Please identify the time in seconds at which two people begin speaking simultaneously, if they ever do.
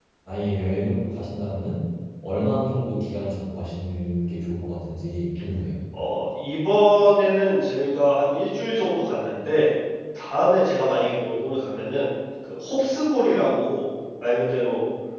none

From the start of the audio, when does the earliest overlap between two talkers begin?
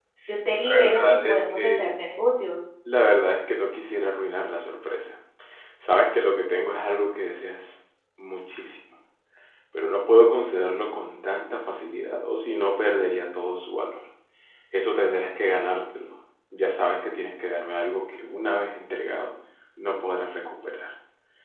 0.7 s

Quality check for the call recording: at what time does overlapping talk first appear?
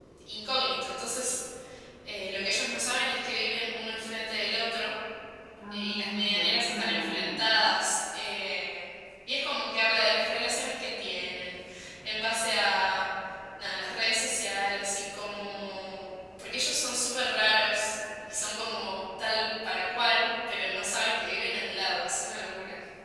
5.7 s

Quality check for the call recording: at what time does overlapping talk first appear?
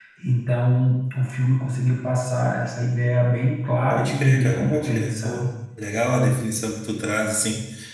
3.9 s

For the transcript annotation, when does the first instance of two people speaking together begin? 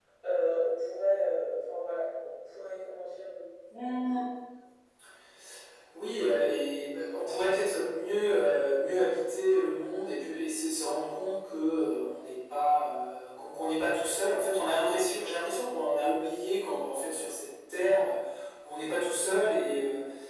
none

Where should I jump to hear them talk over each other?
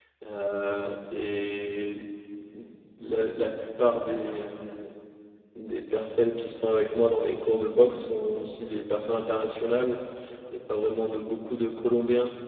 none

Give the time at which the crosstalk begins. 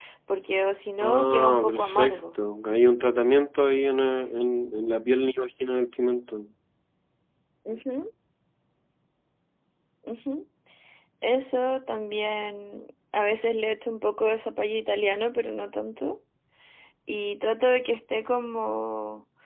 1.0 s

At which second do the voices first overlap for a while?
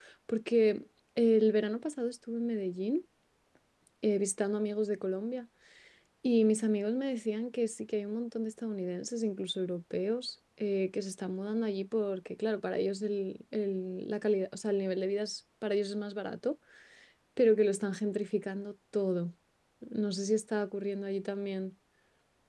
none

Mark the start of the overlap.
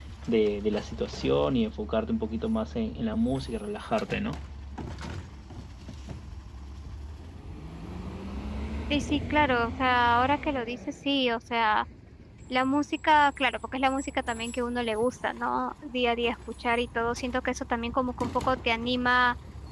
none

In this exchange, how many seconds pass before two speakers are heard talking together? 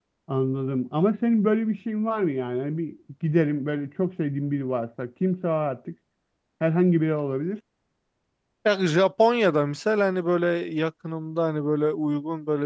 none

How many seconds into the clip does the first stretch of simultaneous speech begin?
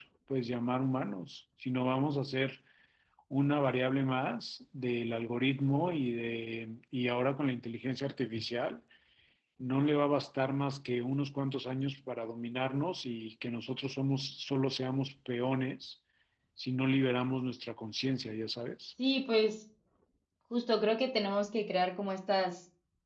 none

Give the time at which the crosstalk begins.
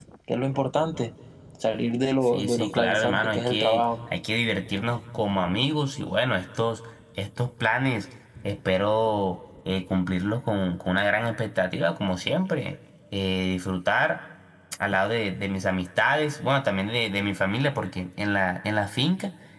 2.2 s

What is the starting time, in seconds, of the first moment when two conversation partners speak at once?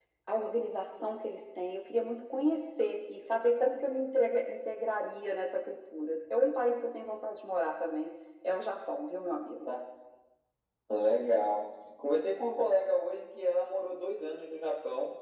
none

